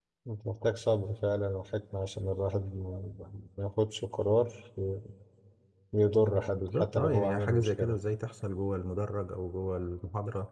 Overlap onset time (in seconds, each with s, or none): 6.5 s